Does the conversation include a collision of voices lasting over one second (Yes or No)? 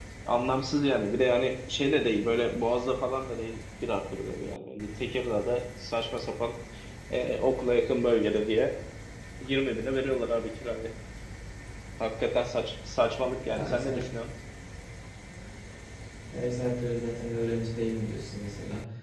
No